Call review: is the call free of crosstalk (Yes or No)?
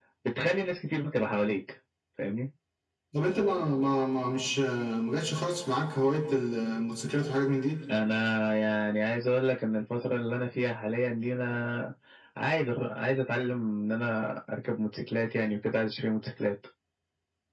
Yes